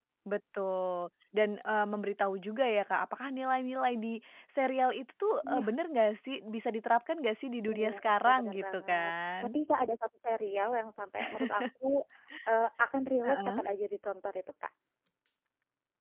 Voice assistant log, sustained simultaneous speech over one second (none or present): present